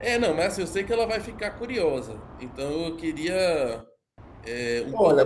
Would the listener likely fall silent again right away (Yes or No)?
No